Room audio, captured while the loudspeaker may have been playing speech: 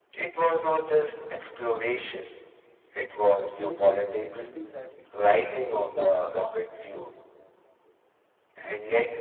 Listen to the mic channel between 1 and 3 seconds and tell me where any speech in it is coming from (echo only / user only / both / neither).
echo only